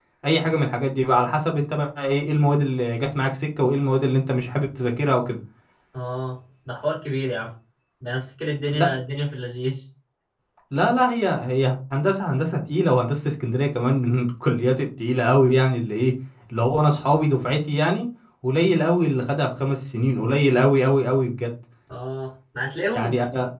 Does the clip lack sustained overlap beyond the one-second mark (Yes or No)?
Yes